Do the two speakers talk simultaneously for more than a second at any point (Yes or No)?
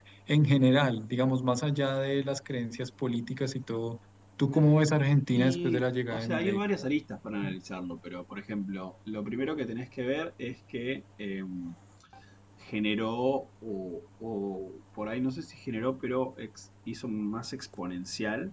Yes